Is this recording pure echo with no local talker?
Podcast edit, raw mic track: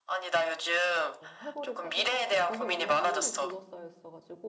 No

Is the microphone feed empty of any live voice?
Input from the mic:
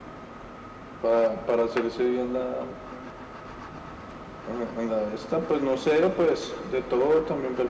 Yes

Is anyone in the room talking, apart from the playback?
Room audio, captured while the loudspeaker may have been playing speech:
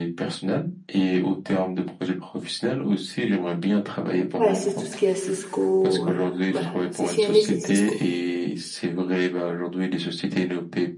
Yes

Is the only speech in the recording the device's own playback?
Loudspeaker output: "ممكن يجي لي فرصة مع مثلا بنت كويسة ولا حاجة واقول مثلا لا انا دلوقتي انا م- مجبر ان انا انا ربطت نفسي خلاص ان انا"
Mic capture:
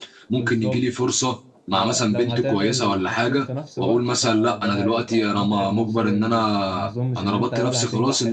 No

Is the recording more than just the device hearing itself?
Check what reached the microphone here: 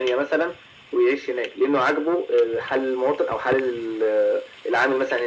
No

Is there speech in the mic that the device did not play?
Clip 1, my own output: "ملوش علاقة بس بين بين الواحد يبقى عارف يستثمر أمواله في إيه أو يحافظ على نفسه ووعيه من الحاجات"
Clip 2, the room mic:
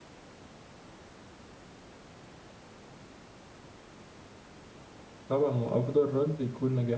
Yes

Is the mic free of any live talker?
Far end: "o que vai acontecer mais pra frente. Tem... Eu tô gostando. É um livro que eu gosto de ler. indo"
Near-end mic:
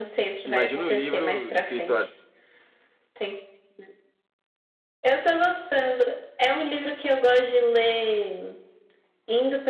No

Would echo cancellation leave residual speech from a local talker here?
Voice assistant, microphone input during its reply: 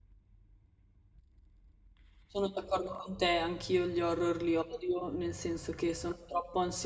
Yes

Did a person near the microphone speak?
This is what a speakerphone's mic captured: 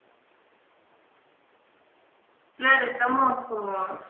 Yes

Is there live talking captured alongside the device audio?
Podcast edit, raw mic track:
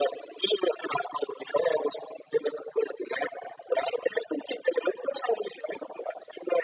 No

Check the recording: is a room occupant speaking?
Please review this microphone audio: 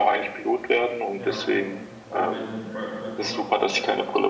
Yes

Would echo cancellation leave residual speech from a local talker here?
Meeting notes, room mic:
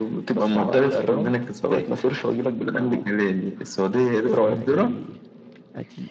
Yes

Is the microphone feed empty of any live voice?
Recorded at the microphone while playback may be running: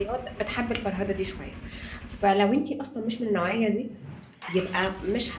No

